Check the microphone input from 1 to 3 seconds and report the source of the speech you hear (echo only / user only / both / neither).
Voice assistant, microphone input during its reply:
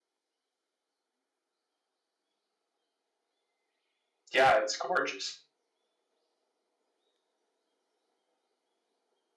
neither